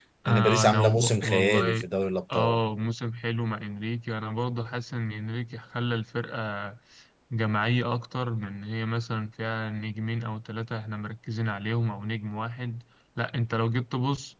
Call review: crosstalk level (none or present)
present